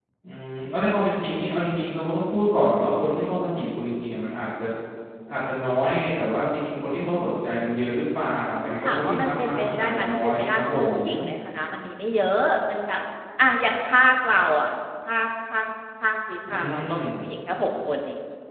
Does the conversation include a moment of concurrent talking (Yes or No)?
Yes